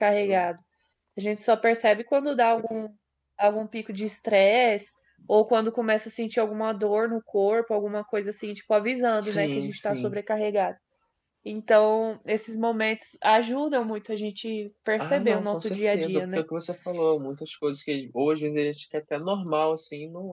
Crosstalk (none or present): present